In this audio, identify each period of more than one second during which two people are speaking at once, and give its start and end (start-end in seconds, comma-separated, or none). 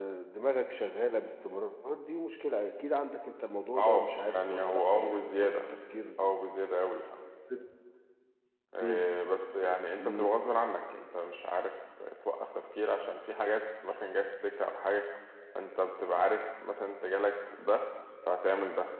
3.8-5.6